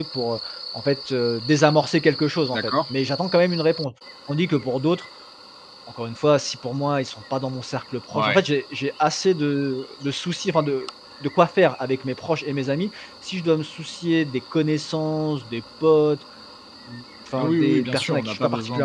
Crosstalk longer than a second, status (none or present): present